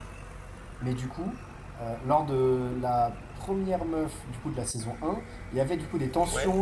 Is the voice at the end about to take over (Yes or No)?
No